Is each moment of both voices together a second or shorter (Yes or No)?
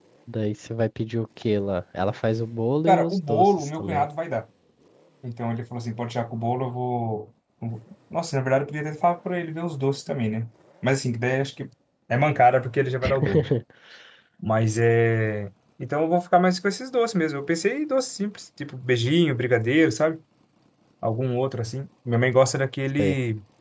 No